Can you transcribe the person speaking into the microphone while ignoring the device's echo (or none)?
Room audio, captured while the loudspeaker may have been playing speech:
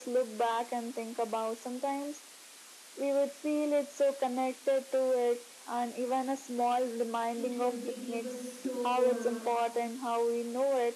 It will be give us so uh,